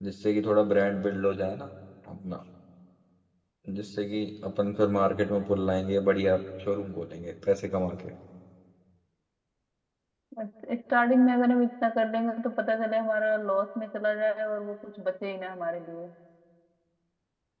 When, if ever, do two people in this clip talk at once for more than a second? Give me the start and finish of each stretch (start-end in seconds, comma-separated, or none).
none